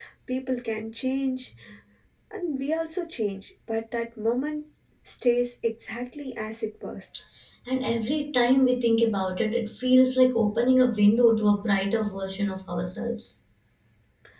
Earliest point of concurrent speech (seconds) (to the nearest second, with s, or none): none